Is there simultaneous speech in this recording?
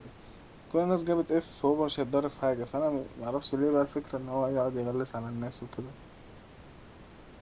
No

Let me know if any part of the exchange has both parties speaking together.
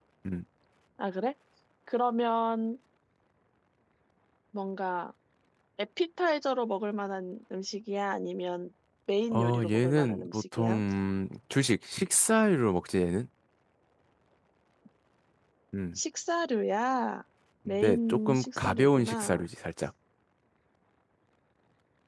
Yes, from 9.3 s

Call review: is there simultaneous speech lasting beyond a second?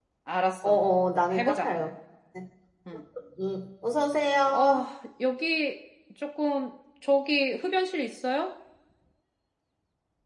No

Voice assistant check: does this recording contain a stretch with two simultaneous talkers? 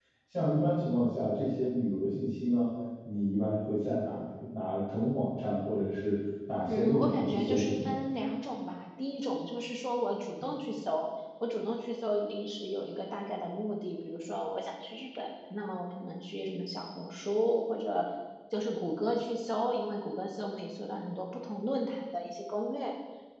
Yes, from 6.6 s

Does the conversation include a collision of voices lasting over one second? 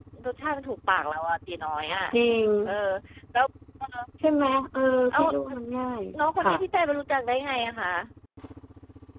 No

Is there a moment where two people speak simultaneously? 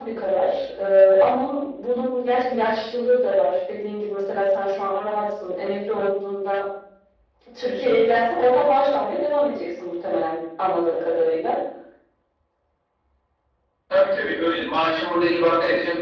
No

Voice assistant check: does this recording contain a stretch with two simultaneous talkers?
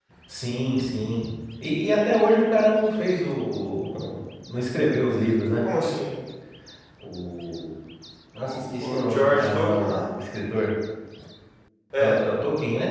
Yes, from 8.4 s

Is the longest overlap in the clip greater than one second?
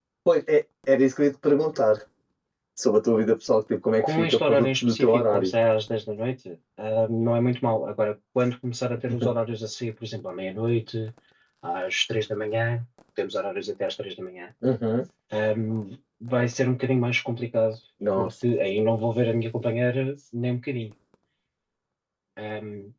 Yes, from 4.0 s

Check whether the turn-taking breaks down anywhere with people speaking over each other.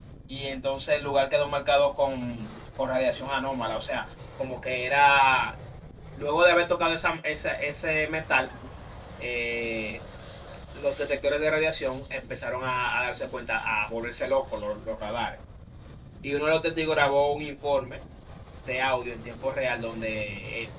No

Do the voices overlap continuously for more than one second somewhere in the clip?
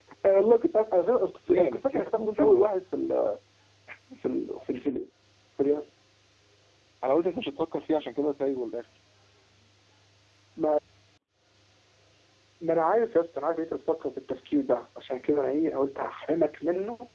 Yes, from 1.5 s

